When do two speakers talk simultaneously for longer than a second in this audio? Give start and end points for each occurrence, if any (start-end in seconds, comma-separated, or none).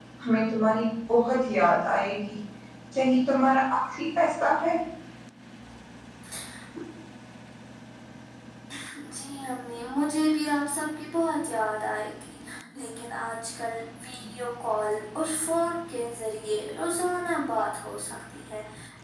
none